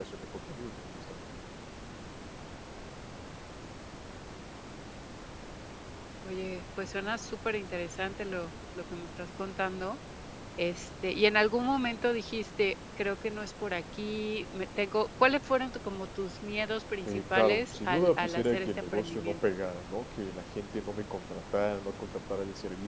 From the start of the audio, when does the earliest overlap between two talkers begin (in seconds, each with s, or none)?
17.1 s